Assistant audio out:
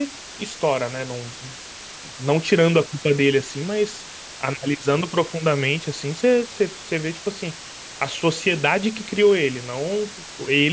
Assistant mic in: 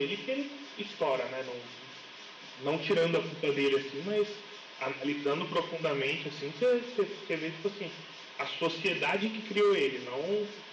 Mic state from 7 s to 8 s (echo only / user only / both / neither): echo only